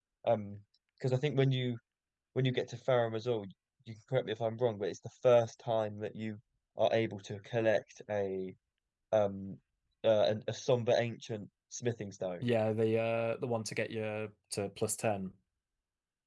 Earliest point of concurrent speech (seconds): none

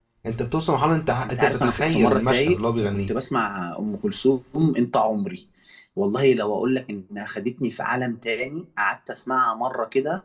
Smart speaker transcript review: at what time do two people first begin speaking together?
1.2 s

